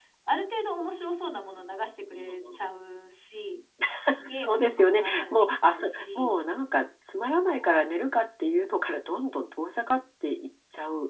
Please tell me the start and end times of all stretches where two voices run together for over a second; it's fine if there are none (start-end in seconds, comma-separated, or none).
4.3-6.3